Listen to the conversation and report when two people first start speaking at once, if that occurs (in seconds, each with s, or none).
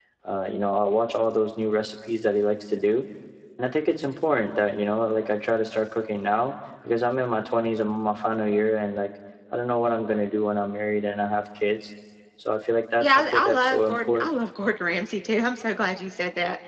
13.0 s